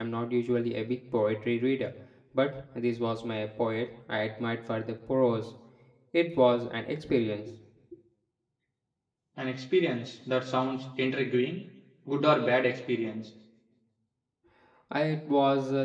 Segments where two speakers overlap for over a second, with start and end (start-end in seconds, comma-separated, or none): none